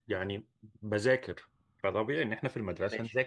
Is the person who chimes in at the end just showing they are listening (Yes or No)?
Yes